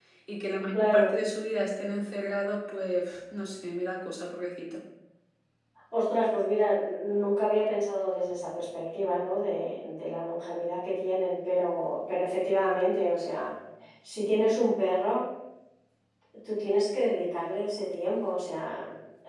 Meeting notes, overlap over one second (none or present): none